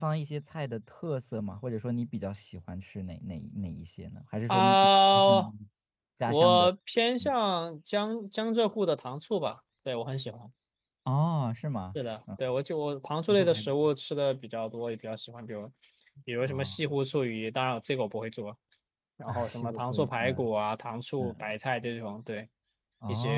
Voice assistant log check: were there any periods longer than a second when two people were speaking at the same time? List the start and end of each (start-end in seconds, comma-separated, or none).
19.3-20.5